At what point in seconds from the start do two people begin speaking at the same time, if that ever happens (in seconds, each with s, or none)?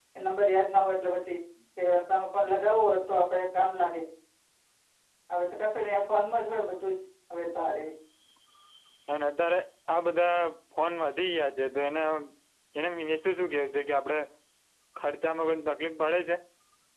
none